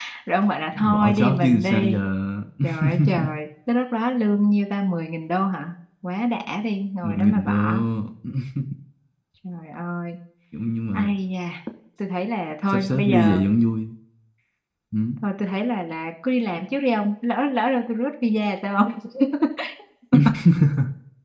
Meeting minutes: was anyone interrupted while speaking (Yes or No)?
Yes